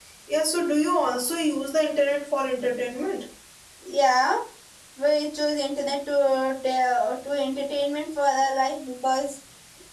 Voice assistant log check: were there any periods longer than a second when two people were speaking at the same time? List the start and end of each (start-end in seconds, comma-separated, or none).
none